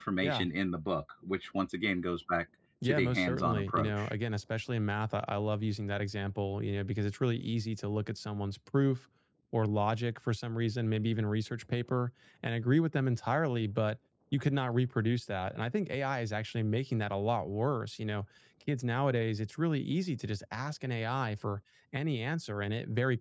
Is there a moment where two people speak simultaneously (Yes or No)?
Yes